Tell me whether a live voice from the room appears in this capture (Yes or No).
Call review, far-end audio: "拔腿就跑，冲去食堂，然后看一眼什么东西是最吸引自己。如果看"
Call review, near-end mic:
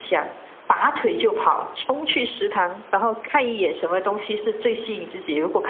No